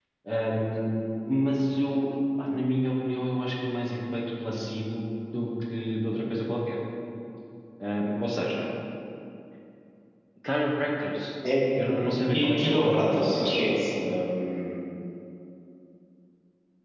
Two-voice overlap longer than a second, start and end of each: 12.3-13.7

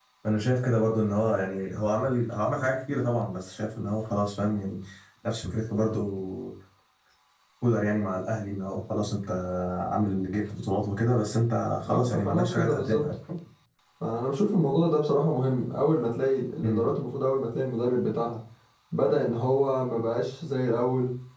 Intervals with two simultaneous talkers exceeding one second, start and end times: 11.8-13.0

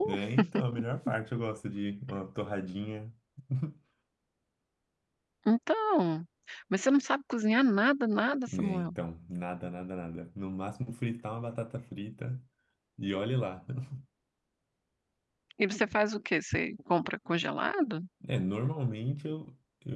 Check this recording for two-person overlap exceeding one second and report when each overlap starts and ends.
none

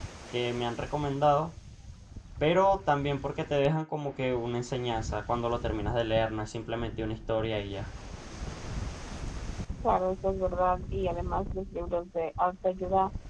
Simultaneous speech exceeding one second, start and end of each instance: none

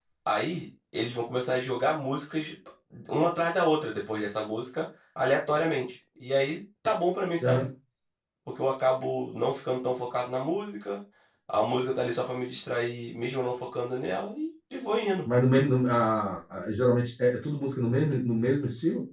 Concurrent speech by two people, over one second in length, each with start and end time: none

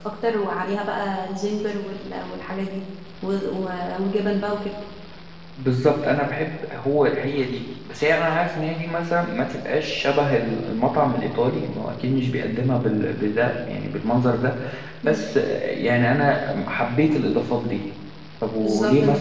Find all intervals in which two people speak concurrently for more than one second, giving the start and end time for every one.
none

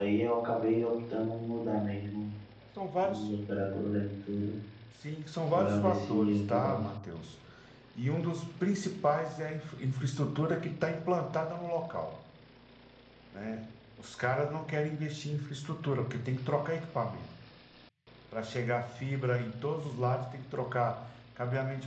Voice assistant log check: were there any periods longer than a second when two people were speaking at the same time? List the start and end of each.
5.5-6.8

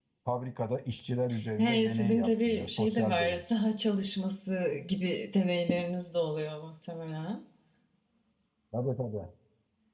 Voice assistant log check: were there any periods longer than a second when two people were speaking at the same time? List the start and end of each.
1.6-3.4

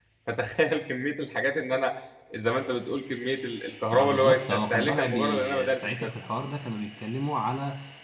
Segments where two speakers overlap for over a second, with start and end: 3.9-6.2

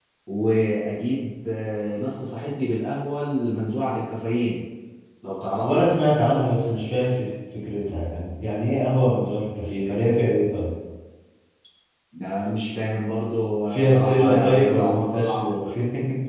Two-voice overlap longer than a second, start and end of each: 13.7-15.4

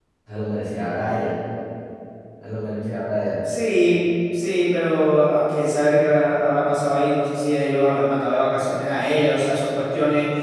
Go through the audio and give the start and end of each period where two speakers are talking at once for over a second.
none

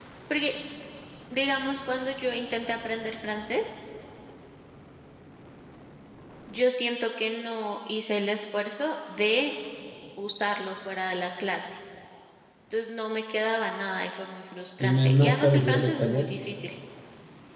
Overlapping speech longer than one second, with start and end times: 14.8-16.4

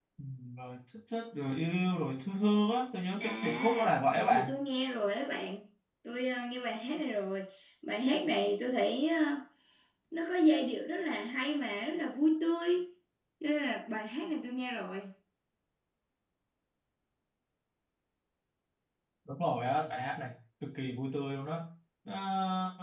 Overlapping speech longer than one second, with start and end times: 3.2-4.5

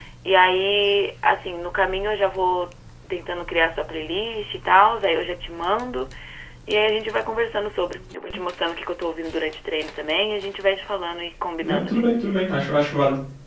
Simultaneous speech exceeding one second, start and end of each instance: none

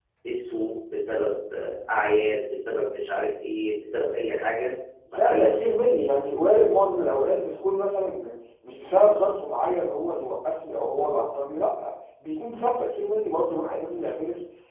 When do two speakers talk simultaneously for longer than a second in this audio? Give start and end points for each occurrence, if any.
none

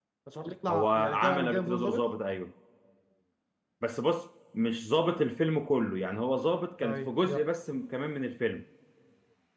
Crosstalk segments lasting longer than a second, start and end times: 0.7-2.0

